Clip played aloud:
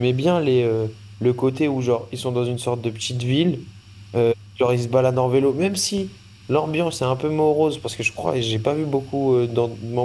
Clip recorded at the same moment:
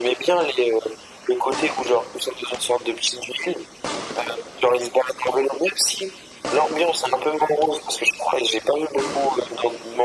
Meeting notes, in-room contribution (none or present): none